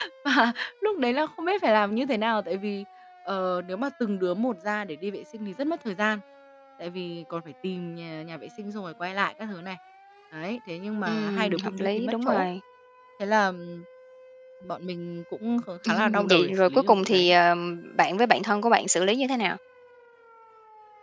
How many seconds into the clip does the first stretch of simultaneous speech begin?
11.1 s

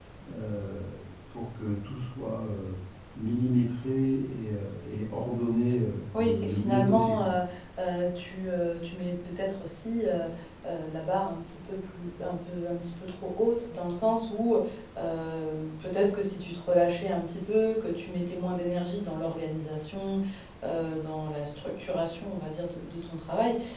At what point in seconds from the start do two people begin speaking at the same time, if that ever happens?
6.1 s

